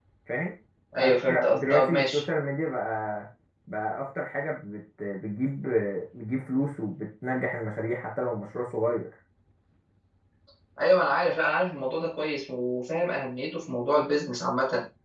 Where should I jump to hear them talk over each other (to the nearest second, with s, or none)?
1 s